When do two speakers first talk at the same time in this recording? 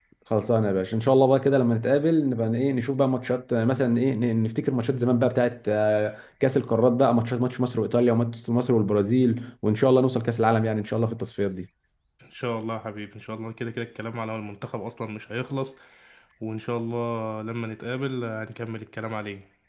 none

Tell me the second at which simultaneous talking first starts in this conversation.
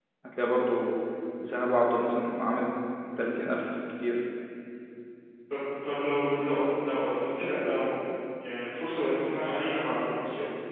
none

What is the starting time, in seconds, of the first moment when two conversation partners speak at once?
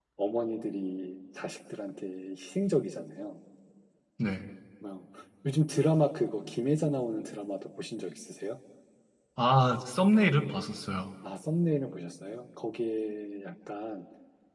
none

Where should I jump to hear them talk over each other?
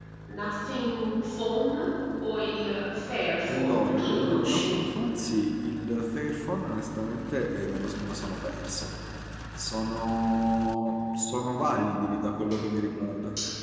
3.5 s

